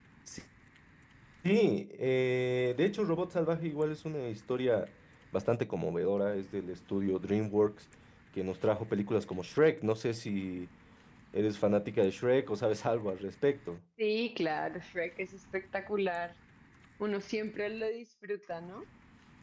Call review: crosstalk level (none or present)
none